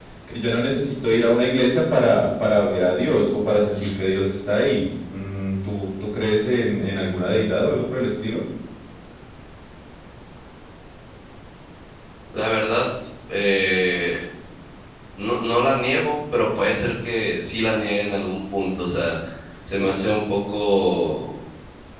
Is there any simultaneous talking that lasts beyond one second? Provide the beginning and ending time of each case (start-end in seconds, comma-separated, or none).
none